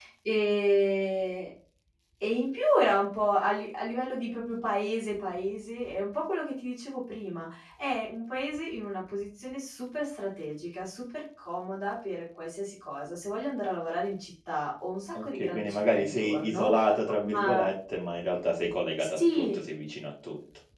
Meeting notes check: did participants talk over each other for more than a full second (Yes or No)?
Yes